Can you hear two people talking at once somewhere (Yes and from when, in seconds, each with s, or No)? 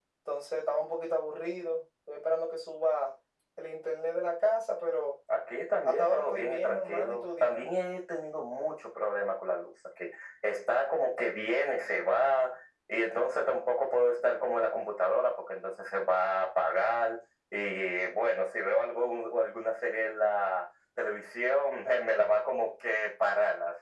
Yes, from 5.8 s